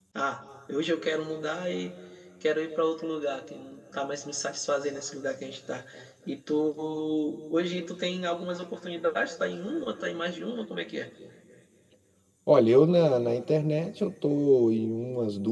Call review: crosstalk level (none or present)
none